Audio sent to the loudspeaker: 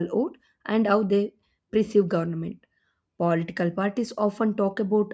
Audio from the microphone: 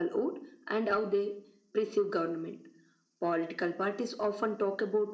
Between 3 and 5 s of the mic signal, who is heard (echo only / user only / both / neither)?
echo only